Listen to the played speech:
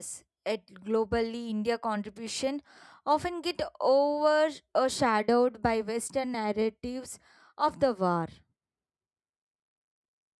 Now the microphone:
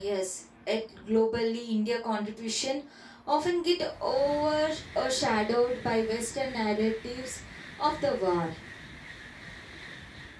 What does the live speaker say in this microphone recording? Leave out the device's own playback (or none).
none